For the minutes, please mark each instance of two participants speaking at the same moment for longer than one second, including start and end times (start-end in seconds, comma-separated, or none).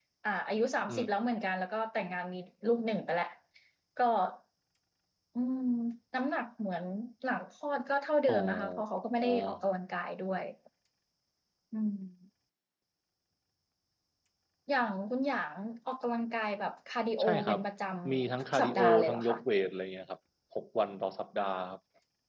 18.1-19.4